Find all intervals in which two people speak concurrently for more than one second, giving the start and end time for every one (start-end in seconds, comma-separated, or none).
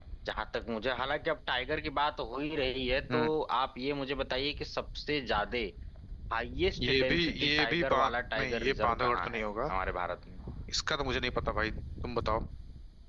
6.8-9.4